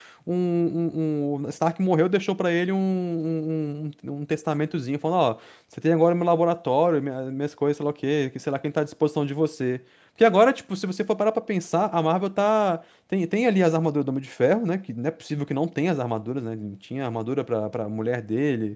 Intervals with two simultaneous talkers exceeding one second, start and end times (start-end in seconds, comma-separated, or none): none